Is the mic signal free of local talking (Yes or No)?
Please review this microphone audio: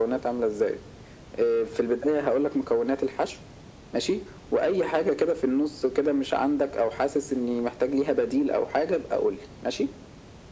Yes